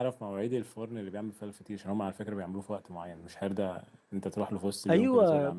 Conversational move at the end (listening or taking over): taking over